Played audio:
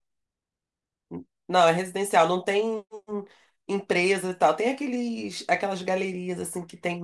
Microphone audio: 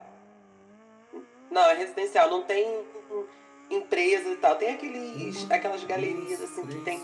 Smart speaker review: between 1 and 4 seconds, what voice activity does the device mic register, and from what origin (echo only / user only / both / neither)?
echo only